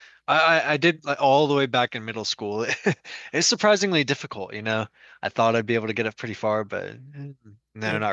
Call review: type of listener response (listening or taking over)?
taking over